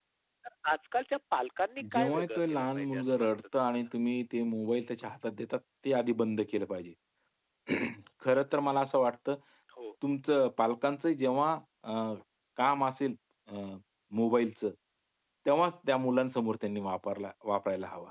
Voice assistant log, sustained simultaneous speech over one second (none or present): present